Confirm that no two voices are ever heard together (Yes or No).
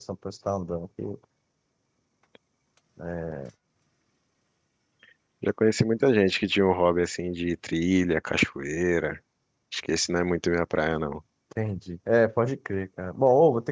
Yes